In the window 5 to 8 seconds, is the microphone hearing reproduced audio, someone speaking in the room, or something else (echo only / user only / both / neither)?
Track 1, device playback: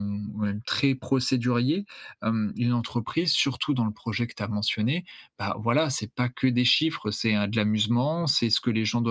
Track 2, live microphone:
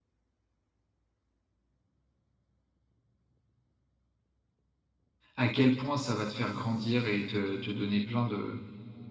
user only